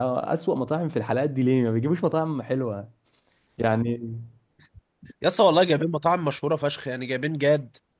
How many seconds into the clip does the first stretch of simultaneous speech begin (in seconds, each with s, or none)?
none